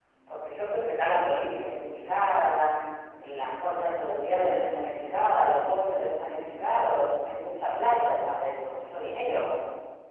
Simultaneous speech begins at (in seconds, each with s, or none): none